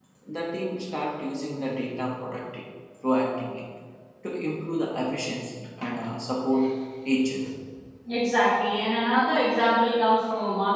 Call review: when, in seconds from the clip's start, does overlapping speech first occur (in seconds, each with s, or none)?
none